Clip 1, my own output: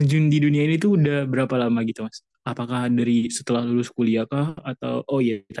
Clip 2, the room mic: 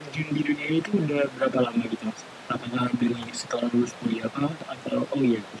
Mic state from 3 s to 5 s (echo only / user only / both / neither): echo only